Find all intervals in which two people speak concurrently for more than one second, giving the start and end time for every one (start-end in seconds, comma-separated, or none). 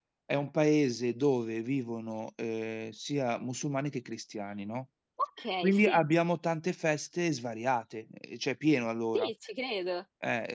none